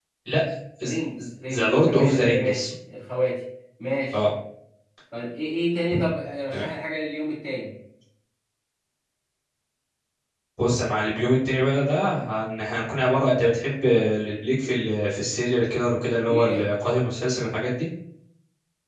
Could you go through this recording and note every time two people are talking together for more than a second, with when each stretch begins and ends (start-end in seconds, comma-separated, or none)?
1.5-2.7